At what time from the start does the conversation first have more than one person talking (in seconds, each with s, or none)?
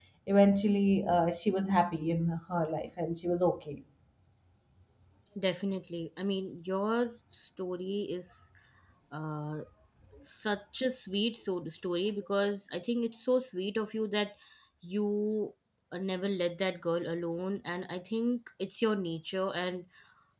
none